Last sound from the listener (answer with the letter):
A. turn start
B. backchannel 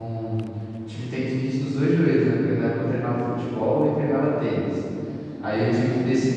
B